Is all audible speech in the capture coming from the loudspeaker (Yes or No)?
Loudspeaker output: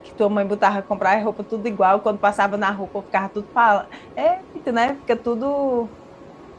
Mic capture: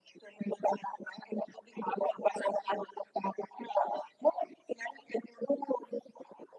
Yes